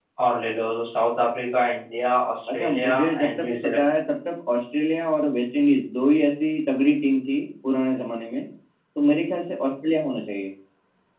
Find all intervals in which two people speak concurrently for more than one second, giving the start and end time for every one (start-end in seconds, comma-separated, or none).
2.5-3.8